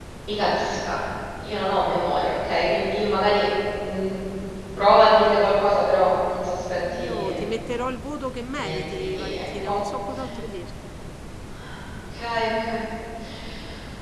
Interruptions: present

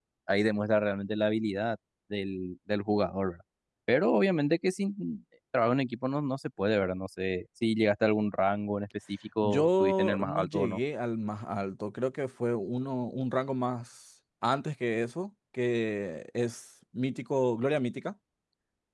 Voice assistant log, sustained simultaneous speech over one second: present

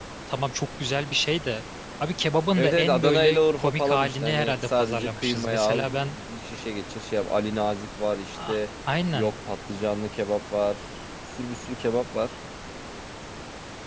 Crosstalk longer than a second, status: present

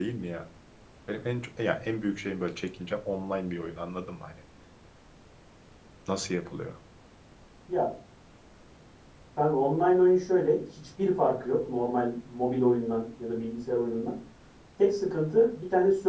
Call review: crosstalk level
none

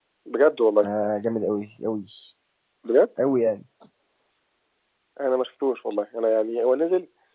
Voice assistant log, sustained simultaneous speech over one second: none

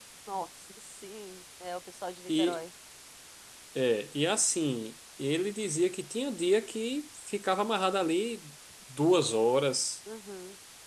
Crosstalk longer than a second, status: none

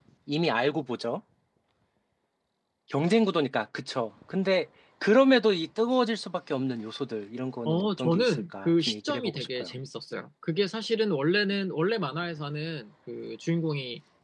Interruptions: present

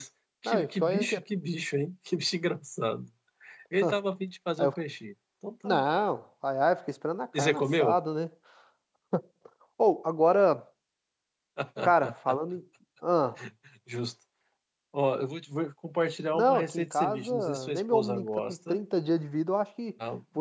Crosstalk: present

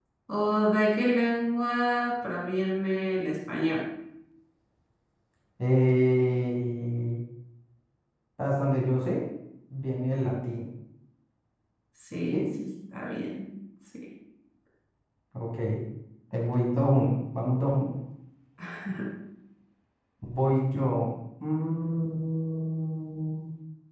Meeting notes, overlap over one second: none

